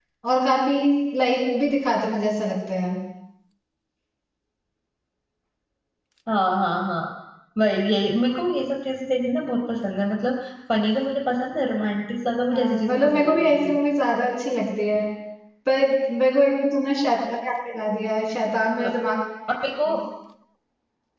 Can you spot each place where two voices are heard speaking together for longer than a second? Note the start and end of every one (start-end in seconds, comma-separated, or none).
12.5-13.8